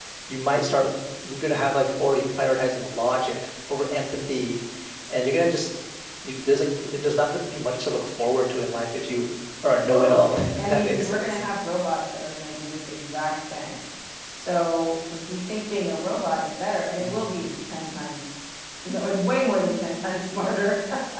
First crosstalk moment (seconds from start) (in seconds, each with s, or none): 9.8 s